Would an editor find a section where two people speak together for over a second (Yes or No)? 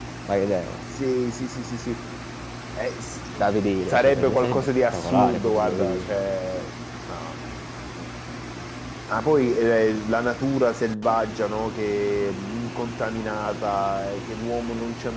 Yes